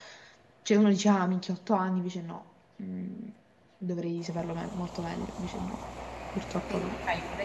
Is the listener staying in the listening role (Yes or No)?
No